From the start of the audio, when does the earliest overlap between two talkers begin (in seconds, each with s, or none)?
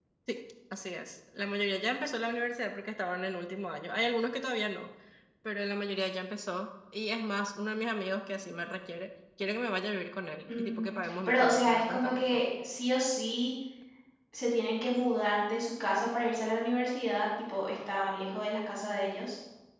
10.5 s